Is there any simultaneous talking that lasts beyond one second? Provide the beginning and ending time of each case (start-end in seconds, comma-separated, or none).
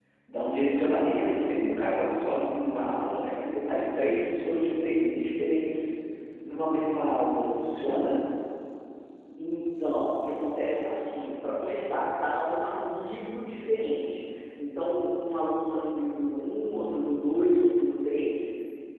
none